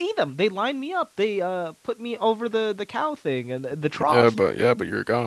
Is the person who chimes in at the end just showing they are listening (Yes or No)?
No